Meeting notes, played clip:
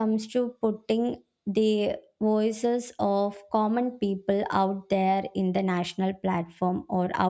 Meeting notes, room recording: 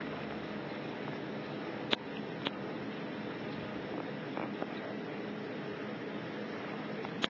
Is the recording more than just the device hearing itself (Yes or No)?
No